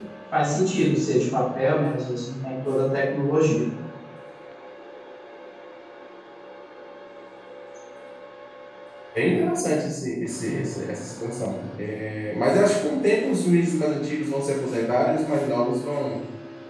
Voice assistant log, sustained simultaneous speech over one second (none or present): none